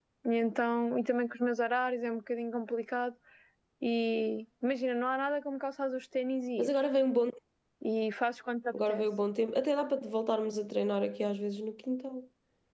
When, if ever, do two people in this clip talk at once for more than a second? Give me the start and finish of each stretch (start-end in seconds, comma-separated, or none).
none